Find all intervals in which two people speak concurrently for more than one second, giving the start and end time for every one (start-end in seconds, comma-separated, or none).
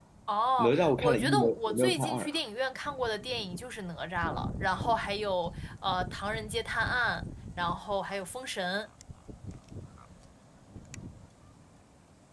0.6-2.3